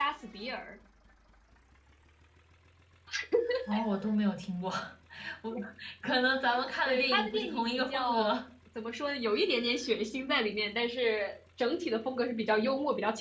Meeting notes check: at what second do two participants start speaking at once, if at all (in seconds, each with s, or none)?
6.8 s